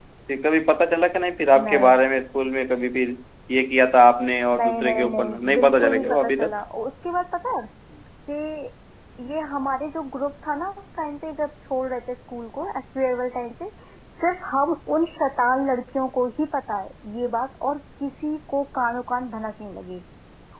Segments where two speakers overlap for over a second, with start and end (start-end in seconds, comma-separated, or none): 4.6-6.6